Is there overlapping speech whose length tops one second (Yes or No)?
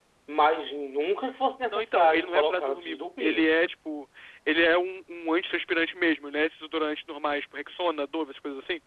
Yes